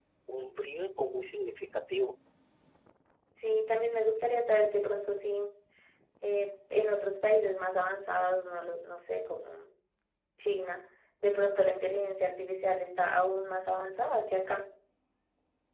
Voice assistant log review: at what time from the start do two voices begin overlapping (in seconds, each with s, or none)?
none